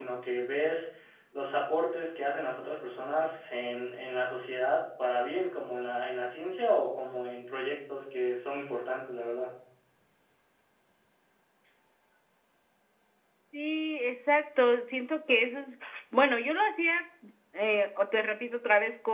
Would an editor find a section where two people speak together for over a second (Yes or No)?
No